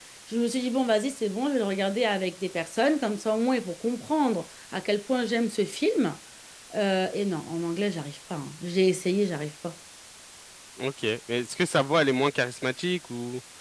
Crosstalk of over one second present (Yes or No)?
No